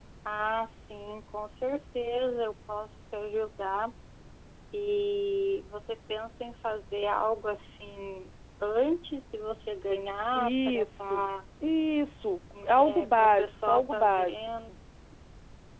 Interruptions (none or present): present